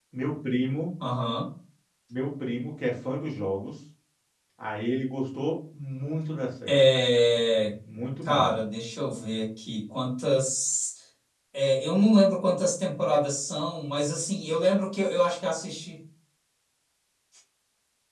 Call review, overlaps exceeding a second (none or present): none